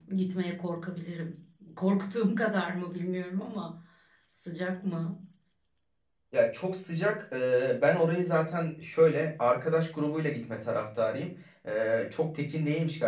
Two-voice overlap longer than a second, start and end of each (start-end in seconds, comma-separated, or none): none